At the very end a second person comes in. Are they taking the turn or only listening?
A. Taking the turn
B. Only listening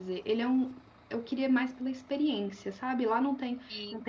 B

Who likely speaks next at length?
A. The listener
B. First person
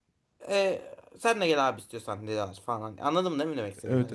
A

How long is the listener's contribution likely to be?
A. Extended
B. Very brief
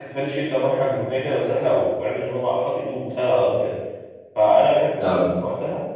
B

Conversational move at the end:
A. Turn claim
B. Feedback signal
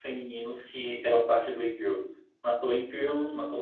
B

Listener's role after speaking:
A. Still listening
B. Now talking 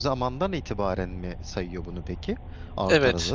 B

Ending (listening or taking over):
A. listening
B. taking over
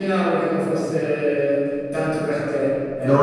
B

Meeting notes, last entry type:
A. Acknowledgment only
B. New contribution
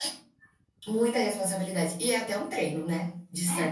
A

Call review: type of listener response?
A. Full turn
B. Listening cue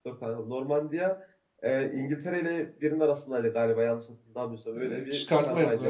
A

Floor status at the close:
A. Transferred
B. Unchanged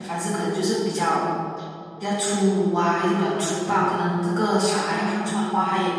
B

